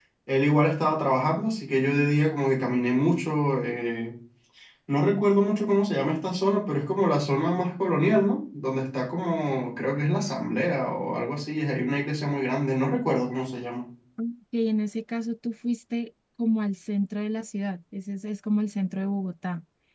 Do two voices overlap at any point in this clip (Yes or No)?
No